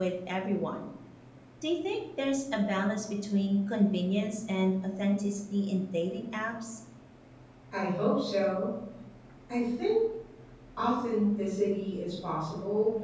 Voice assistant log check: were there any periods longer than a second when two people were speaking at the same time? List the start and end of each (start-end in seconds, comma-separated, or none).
none